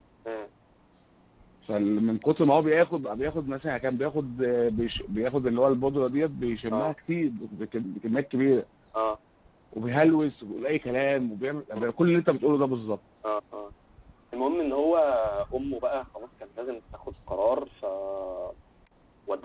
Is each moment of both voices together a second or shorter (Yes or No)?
Yes